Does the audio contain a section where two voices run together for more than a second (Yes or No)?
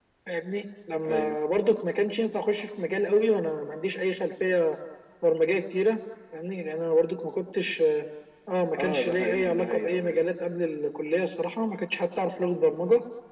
Yes